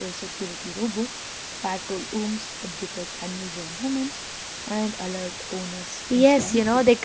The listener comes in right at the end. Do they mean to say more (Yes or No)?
Yes